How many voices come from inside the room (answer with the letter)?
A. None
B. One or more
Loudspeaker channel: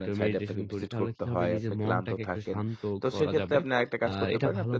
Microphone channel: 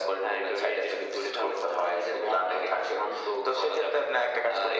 A